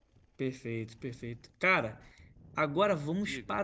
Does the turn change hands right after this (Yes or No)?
No